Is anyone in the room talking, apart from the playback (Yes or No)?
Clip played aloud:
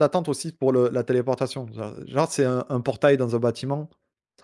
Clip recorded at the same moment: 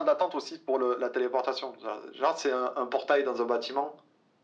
No